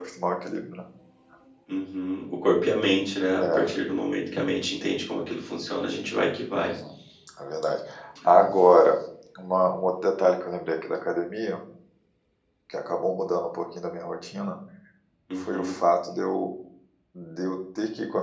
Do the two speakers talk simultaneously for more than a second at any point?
No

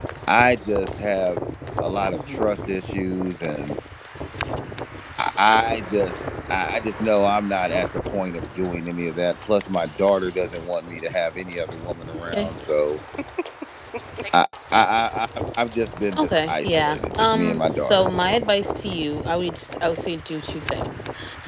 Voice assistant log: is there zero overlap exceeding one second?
No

